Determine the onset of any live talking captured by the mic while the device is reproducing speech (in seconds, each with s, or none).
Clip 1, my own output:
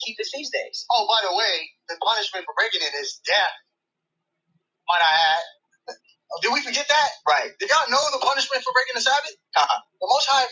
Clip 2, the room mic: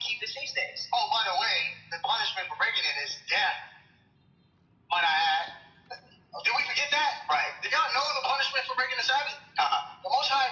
none